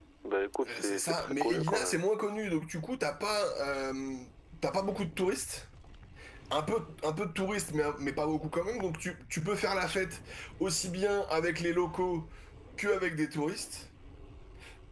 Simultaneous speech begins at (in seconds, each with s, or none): 0.6 s